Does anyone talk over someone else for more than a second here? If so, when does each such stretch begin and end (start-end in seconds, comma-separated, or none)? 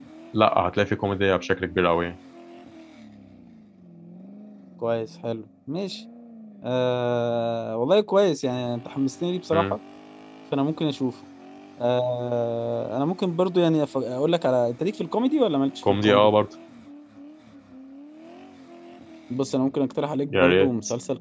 none